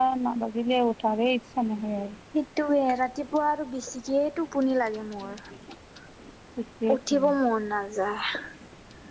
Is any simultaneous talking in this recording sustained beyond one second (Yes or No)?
No